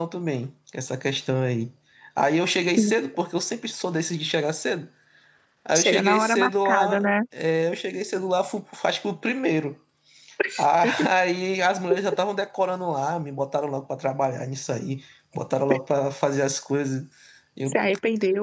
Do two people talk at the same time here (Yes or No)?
Yes